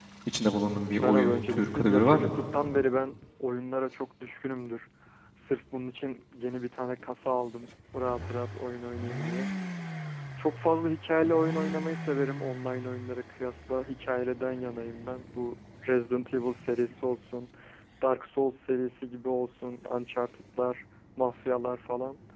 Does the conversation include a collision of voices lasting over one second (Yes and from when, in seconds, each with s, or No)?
Yes, from 1.0 s